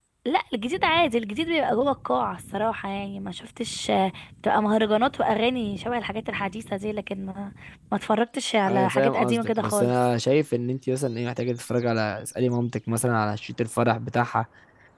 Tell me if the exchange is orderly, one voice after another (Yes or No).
No